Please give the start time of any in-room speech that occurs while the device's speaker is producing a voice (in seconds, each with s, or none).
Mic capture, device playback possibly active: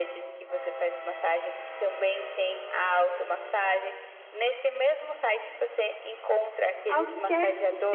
6.9 s